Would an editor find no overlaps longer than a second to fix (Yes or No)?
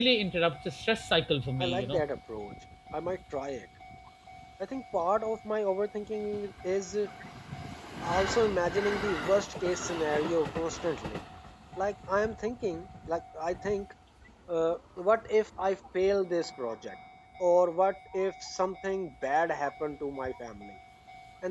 Yes